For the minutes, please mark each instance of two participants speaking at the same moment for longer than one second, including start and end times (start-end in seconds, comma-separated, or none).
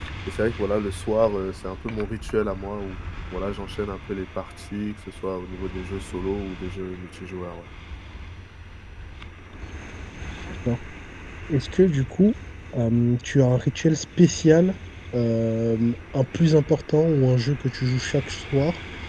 none